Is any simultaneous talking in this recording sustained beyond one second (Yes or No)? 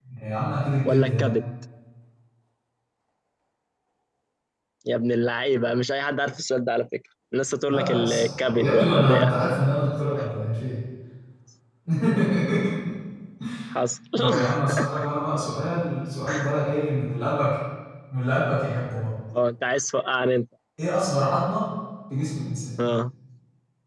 Yes